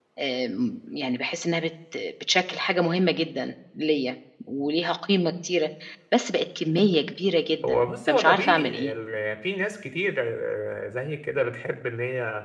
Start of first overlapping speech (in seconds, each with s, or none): 7.6 s